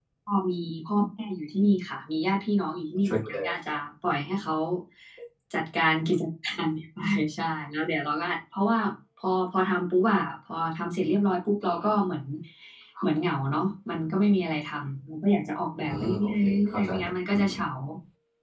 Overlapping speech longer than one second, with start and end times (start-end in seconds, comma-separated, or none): 15.8-17.5